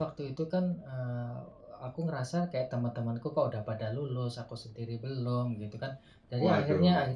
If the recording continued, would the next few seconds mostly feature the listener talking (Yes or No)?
No